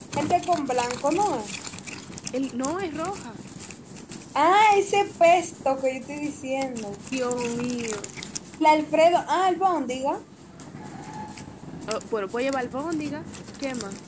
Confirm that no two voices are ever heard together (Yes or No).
Yes